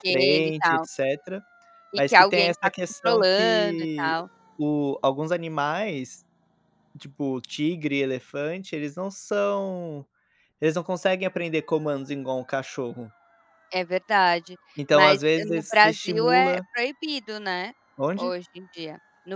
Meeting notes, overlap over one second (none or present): present